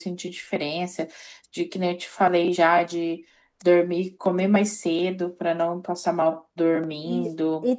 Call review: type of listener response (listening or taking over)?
taking over